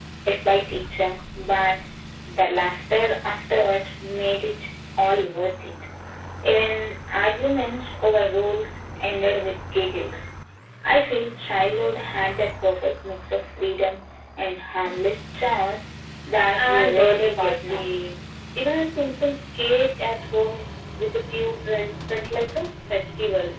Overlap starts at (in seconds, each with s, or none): 16.6 s